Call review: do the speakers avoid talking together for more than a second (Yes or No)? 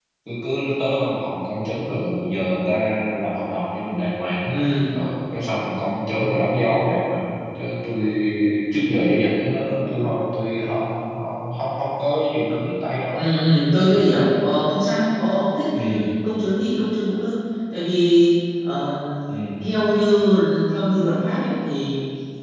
Yes